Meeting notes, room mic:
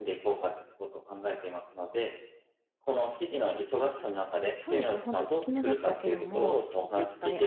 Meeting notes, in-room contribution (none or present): present